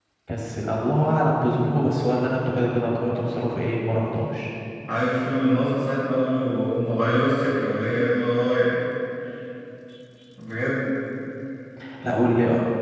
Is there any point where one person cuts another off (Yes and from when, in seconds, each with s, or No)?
No